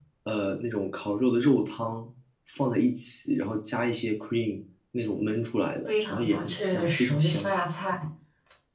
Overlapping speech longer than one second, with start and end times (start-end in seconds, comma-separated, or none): 5.9-7.5